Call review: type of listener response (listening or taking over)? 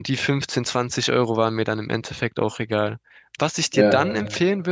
listening